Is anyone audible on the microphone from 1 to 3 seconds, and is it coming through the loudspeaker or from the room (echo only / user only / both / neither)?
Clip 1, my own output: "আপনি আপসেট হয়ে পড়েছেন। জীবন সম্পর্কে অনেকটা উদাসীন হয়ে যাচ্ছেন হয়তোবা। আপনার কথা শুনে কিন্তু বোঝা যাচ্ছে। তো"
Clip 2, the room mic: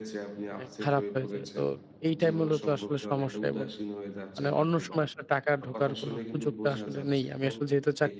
both